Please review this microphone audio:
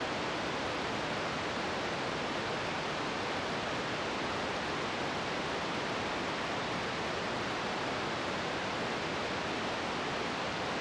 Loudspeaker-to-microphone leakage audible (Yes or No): No